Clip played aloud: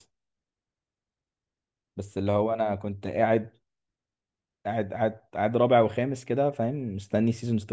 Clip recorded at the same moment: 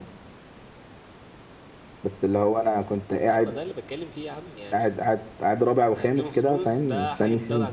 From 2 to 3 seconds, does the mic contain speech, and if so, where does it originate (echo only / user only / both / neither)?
echo only